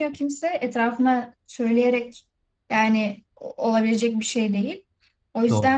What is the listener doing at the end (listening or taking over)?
listening